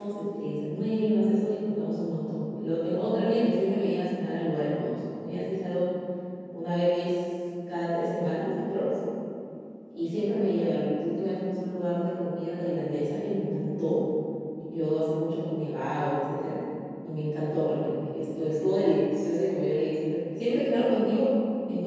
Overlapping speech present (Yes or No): No